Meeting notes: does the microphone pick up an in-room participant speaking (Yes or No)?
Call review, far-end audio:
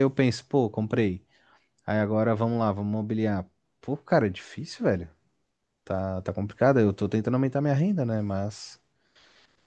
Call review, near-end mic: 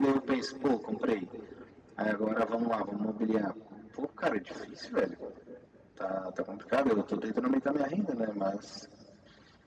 No